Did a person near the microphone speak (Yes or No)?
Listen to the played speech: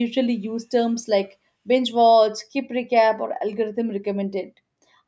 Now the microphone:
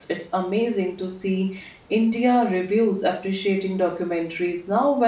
Yes